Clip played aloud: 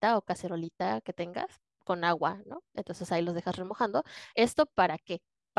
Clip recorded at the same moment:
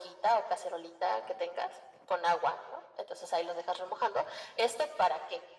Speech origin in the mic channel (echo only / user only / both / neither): echo only